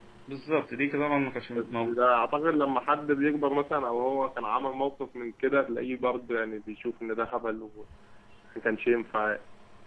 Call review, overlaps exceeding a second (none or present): none